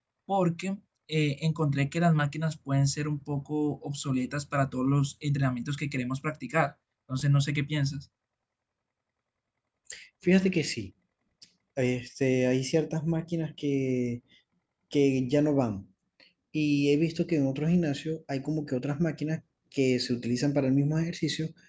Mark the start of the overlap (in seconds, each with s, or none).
none